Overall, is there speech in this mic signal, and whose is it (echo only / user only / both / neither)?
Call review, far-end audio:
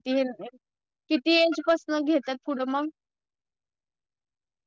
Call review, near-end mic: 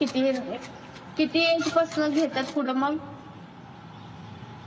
echo only